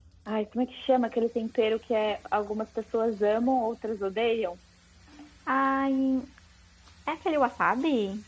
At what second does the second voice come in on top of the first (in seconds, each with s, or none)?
none